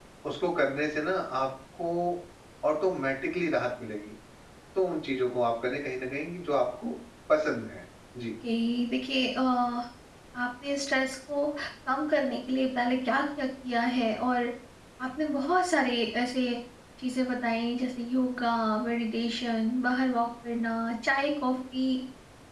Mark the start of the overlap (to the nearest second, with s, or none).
none